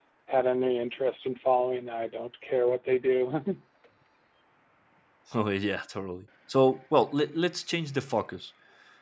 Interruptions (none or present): none